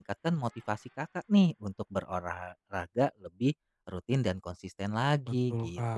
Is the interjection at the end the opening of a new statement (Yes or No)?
Yes